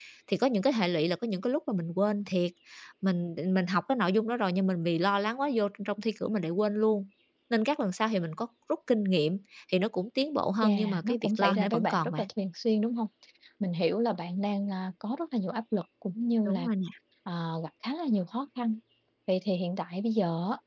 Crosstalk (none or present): present